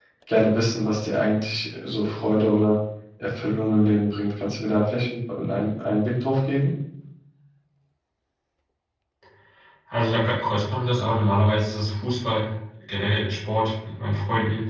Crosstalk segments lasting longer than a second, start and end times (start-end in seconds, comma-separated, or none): none